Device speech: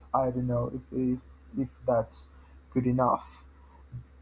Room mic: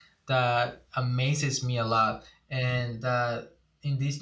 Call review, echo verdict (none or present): none